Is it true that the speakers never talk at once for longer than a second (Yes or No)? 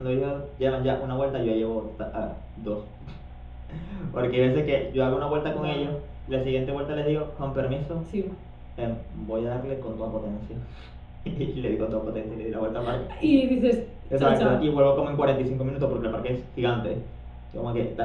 Yes